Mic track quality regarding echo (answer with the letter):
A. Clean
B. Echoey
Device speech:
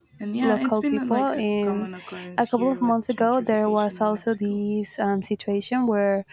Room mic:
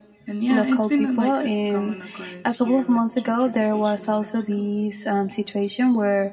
B